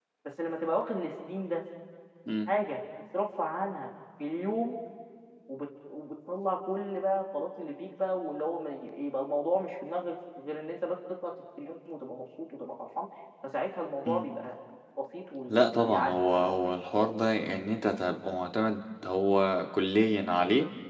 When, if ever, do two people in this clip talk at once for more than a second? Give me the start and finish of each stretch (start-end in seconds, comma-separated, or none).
15.5-16.7